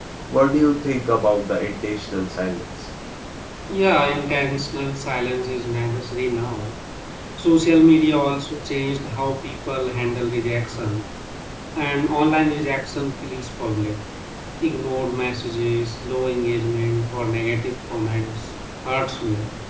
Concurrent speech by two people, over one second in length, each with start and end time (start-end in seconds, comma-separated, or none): none